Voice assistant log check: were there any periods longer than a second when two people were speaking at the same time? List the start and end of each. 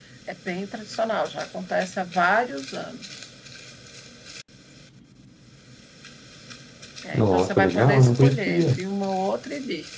7.1-8.8

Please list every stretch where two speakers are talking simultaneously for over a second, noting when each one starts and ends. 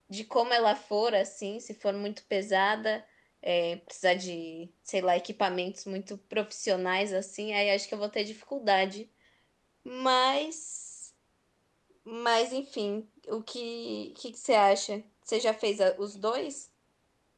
none

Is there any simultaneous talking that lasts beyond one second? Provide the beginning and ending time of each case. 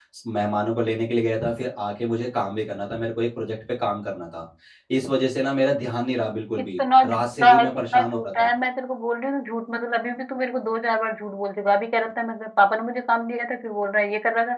6.8-8.5

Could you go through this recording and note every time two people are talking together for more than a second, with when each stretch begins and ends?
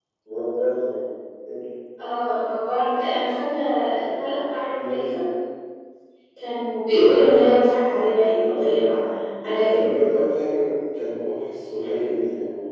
none

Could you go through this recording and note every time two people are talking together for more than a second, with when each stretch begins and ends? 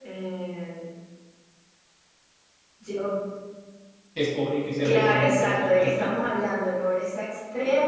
4.8-6.1

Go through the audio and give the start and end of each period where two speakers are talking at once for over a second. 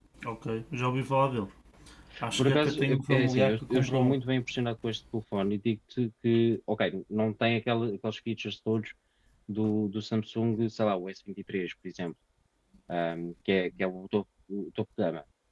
2.4-4.2

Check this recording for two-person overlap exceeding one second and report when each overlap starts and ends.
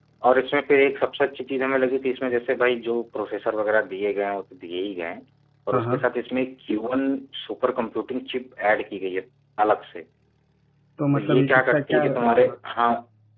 11.2-12.5

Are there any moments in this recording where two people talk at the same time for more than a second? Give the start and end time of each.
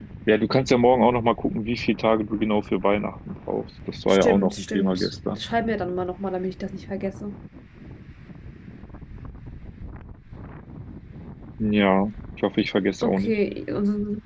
4.1-5.4

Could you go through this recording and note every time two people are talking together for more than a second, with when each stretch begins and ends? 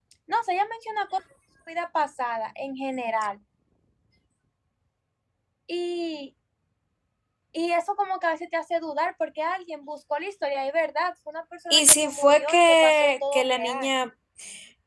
11.7-13.9

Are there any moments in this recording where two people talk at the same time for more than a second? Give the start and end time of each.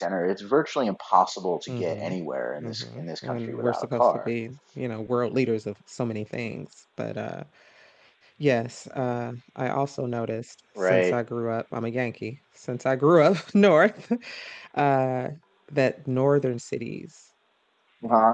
2.6-4.3

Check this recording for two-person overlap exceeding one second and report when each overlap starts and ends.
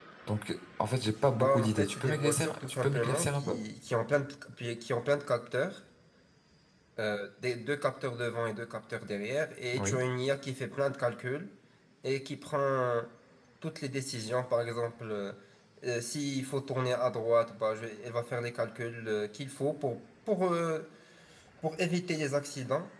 1.3-3.6

